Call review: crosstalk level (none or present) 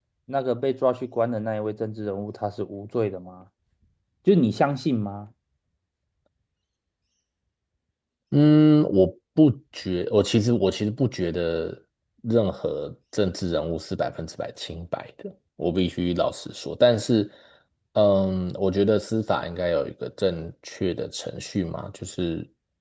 none